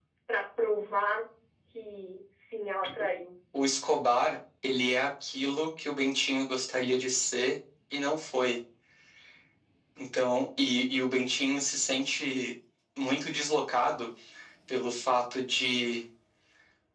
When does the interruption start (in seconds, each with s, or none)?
none